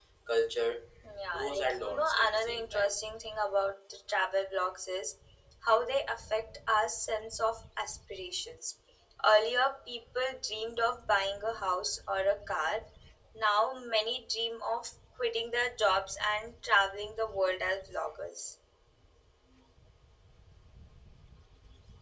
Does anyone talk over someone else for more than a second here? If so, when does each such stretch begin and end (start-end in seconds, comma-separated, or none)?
1.3-2.9